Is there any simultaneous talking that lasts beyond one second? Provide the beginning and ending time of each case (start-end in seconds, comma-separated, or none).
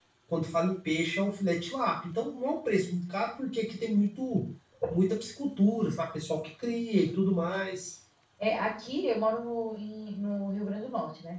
none